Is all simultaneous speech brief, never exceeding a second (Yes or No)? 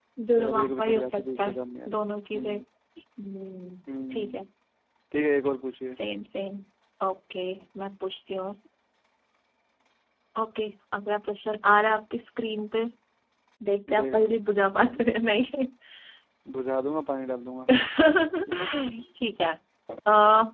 No